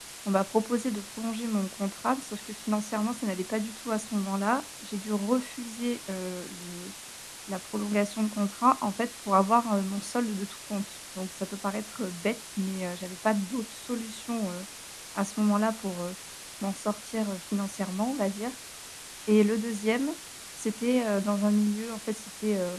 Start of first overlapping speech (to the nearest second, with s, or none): none